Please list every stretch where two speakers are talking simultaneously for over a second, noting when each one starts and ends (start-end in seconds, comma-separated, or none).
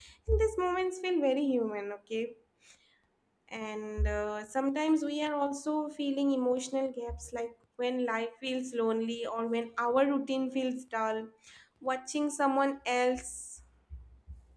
none